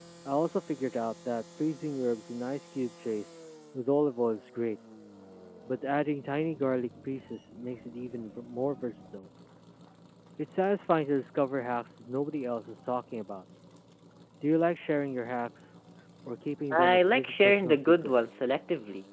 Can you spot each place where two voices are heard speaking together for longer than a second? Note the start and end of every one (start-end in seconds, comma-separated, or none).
16.8-18.1